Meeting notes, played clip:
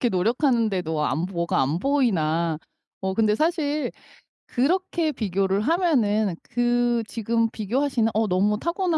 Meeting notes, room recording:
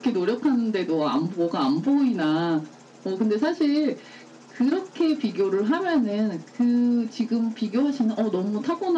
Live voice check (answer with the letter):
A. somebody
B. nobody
B